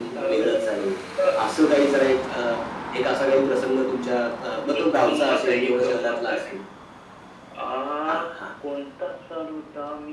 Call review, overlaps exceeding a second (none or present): present